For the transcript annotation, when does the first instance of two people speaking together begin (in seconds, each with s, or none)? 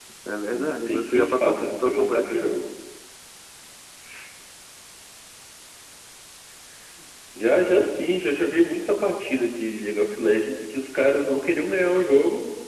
0.5 s